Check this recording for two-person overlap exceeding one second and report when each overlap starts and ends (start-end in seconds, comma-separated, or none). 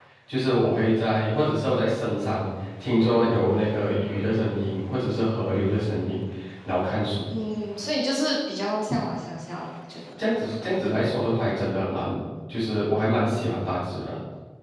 none